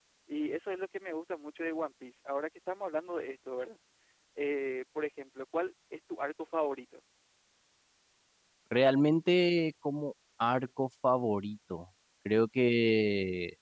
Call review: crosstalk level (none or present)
none